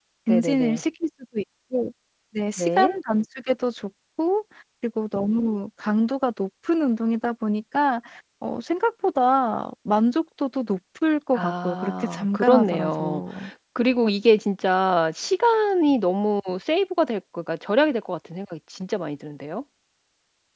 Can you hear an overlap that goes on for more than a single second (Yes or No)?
Yes